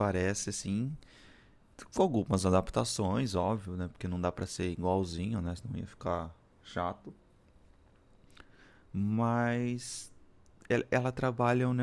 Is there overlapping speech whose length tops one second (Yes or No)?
No